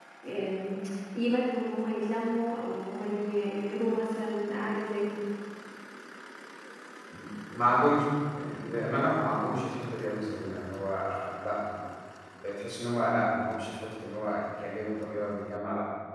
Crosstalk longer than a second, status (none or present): none